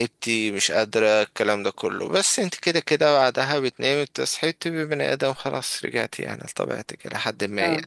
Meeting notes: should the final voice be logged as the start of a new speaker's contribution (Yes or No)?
No